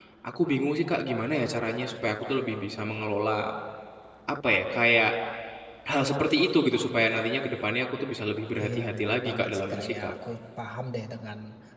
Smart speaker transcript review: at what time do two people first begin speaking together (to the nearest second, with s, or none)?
9 s